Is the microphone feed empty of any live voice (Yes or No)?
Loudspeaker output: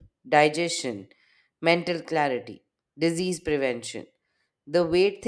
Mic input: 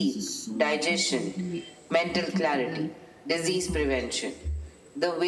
No